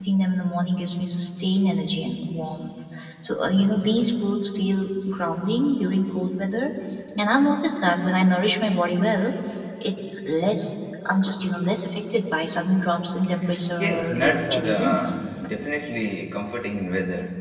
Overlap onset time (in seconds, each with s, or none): 13.8 s